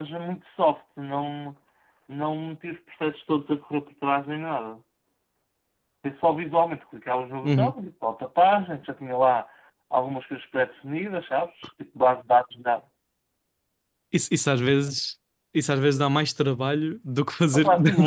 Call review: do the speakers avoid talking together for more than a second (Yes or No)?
Yes